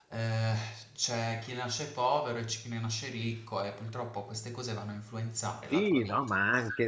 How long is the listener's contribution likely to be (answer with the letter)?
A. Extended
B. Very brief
A